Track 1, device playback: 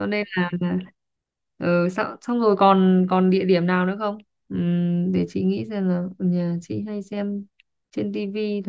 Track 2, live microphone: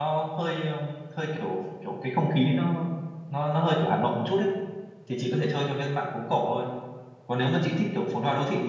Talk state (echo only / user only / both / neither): user only